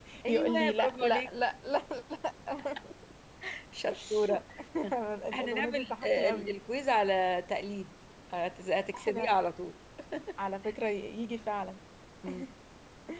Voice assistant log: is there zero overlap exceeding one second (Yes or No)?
No